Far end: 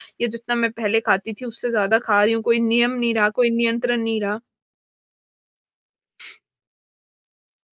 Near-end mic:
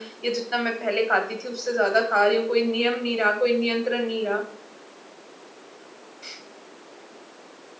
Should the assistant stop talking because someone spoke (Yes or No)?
No